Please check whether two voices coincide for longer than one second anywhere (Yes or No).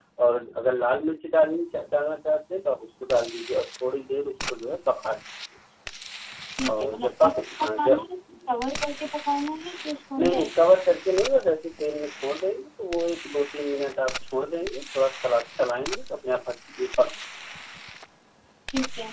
Yes